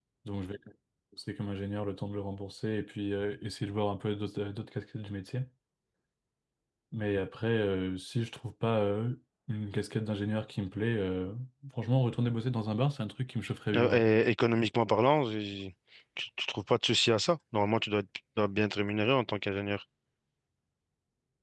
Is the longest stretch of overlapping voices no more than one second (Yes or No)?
Yes